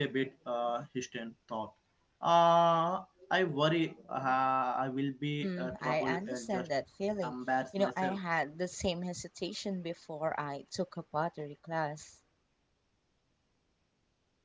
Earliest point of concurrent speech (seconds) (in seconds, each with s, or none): 5.4 s